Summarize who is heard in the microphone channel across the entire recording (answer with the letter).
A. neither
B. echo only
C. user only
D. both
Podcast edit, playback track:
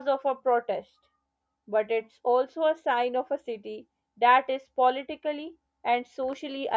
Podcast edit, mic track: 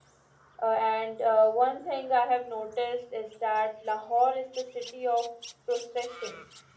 C